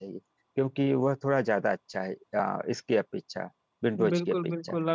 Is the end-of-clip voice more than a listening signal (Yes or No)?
Yes